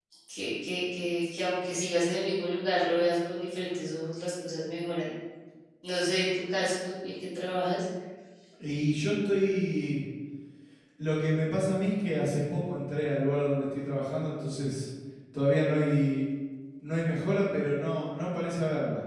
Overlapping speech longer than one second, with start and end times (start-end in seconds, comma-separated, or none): none